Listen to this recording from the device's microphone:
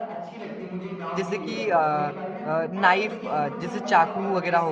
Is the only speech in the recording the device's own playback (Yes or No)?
No